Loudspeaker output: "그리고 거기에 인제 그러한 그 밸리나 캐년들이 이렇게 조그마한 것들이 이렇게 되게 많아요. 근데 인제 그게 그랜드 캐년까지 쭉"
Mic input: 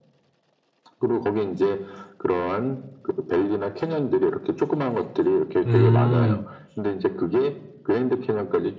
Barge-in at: 5.6 s

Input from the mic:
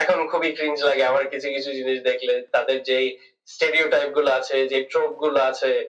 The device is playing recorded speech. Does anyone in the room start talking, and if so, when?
none

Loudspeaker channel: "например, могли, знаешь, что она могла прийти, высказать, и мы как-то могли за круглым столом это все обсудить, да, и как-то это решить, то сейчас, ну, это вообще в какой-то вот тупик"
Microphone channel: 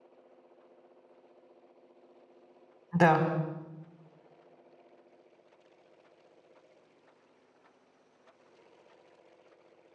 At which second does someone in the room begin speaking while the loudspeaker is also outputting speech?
2.9 s

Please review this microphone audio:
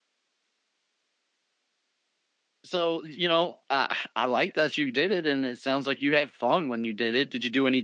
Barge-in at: 2.6 s

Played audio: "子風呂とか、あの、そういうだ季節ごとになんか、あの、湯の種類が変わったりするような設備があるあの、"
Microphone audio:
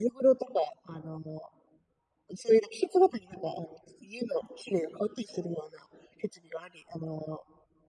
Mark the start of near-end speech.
none

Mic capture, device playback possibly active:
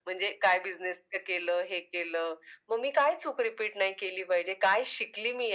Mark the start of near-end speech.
none

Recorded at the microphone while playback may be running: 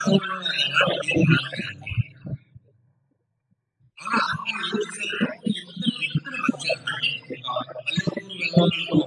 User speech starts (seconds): none

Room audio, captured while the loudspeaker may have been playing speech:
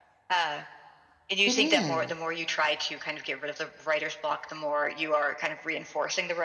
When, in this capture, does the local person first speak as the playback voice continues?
1.4 s

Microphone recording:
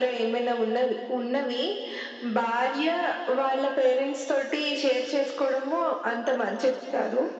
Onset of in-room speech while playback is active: none

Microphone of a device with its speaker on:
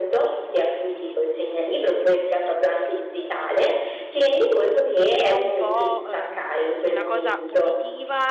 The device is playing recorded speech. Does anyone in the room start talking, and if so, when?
5.1 s

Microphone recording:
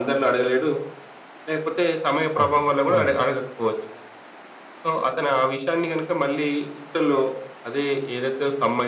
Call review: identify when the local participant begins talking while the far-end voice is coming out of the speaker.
2.4 s

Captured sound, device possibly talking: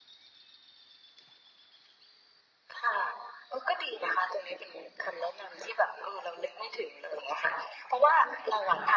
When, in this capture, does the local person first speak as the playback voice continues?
none

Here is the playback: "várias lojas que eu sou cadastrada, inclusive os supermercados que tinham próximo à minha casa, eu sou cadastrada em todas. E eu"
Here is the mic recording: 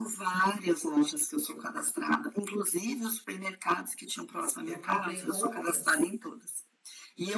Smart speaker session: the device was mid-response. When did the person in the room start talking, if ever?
4.6 s

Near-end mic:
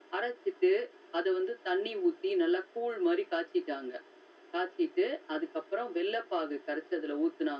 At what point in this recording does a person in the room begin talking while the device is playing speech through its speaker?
none

